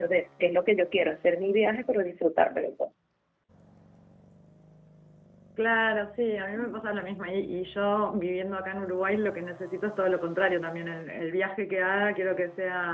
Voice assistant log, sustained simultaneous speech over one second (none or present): none